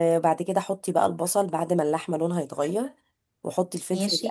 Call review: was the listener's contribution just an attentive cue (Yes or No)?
Yes